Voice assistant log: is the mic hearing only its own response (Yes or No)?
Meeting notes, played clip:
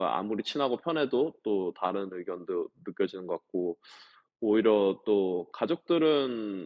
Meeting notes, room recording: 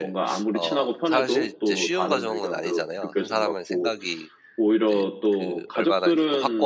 No